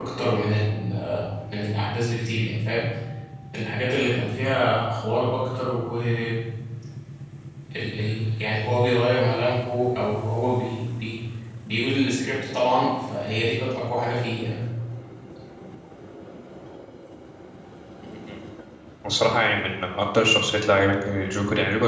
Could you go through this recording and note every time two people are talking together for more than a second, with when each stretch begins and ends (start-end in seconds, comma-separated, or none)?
none